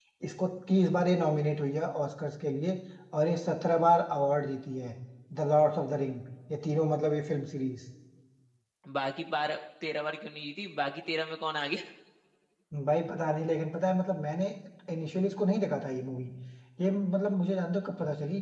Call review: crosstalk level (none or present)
none